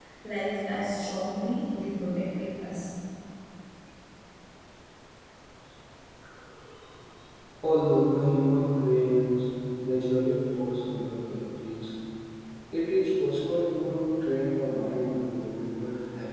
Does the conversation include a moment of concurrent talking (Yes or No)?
No